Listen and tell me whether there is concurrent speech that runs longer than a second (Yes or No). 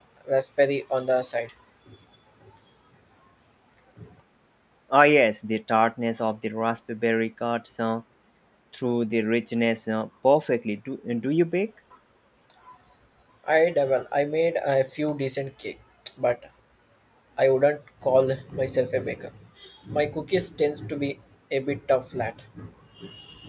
No